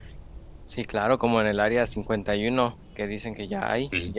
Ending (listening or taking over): listening